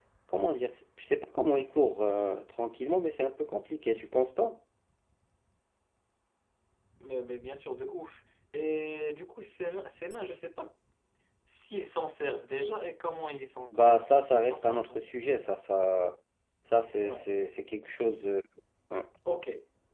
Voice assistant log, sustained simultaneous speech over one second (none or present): present